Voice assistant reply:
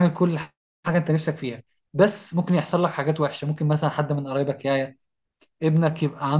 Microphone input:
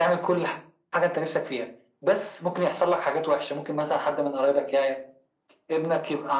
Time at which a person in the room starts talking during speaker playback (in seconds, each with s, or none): none